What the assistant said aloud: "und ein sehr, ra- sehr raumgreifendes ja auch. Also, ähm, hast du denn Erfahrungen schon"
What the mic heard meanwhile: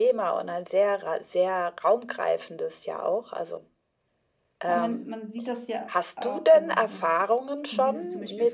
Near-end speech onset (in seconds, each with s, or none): 4.7 s